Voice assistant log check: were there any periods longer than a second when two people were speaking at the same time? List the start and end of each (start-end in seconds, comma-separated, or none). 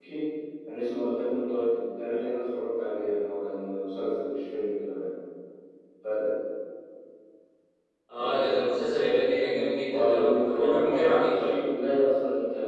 9.9-11.6